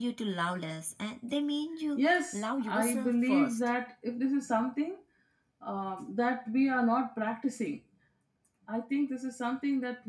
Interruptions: present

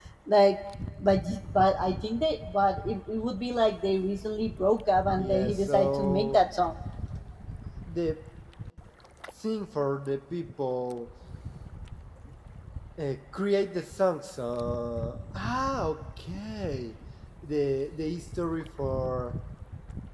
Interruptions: present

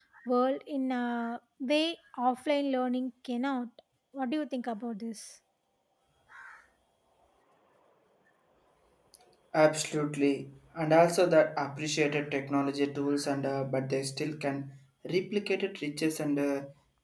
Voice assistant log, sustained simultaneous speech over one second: none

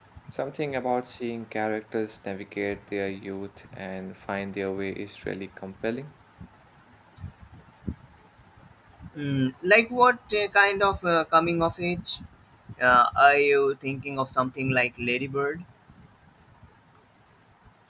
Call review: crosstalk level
none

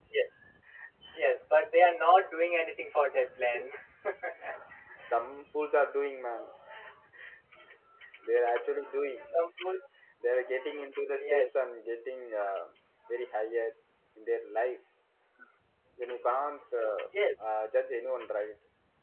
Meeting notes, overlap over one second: none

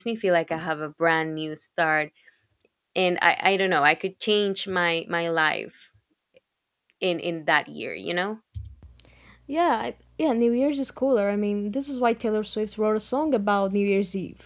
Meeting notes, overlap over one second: none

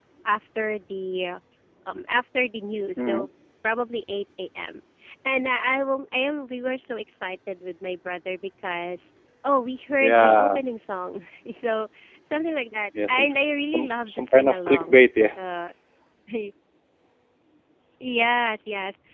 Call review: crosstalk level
present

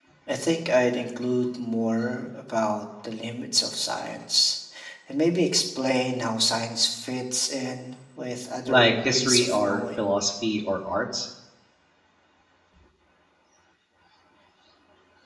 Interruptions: present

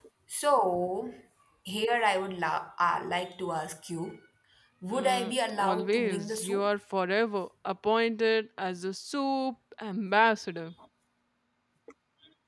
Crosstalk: present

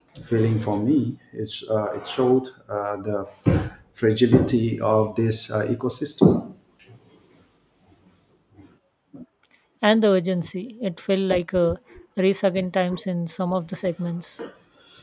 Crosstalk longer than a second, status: none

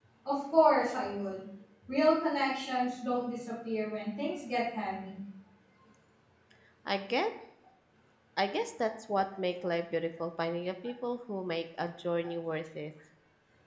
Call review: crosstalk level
none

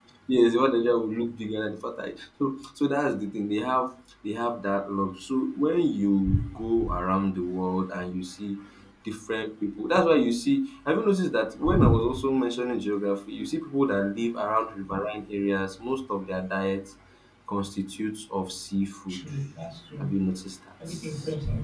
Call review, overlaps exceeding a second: none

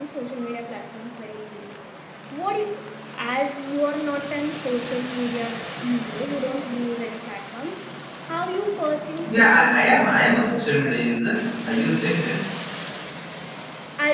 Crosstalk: present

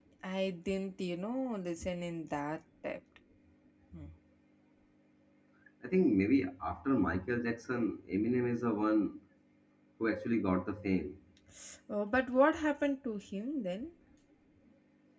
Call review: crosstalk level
none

